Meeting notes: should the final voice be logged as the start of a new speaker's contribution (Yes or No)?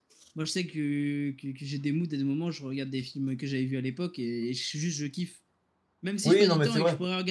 Yes